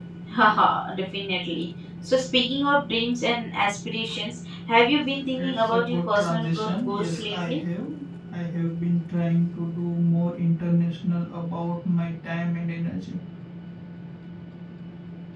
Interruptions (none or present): present